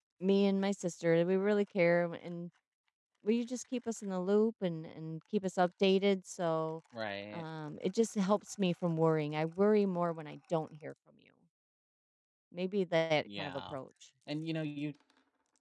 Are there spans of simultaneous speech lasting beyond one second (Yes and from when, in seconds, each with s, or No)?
No